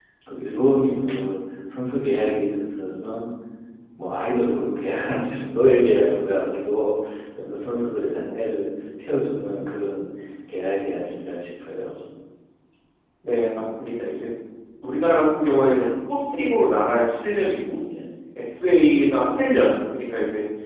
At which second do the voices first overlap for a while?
none

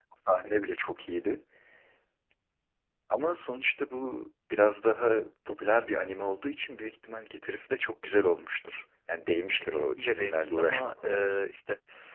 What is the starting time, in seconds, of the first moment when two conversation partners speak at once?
10 s

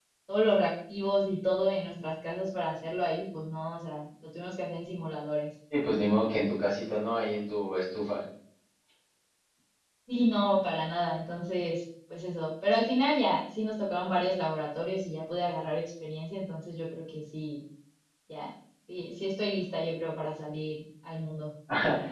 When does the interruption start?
none

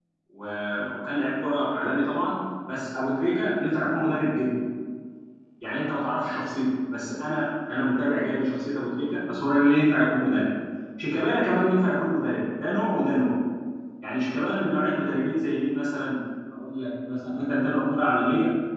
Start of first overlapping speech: none

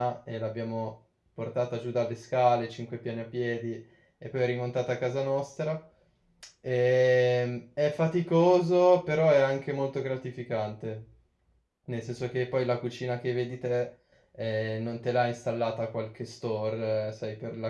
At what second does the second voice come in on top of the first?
none

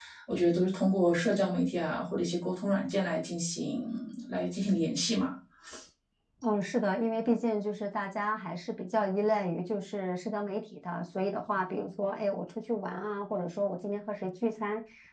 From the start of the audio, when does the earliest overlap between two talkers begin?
none

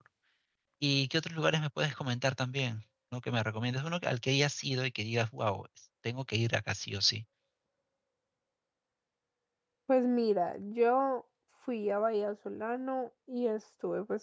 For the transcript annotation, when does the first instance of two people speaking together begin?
none

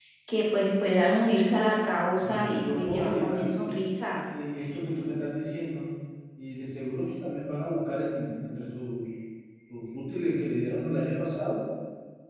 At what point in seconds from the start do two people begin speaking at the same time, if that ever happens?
2 s

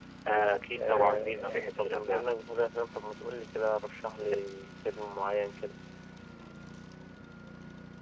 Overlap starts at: 1 s

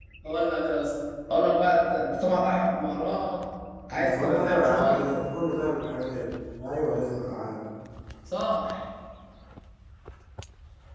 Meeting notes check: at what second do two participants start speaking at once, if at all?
4 s

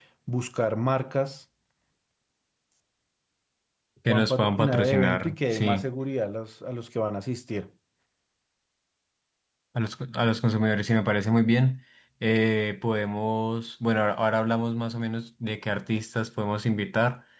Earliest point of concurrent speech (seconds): 4 s

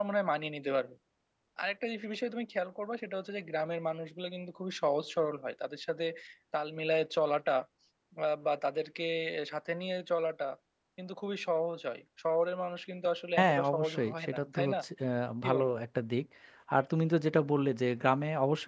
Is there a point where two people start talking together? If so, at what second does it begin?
13 s

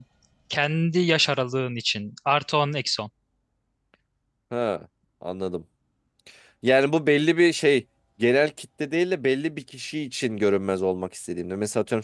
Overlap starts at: none

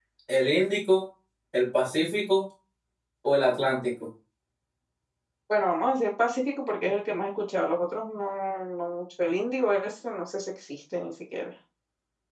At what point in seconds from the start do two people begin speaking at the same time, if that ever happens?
none

